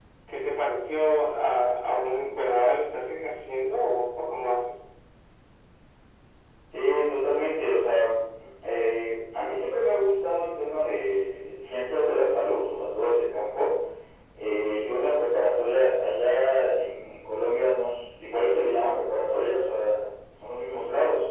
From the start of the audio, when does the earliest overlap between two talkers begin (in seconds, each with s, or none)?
none